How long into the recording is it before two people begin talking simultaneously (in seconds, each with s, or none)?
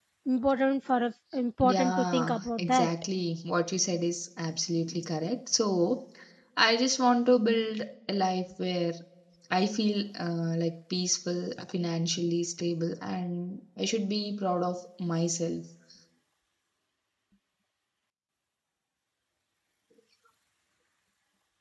1.6 s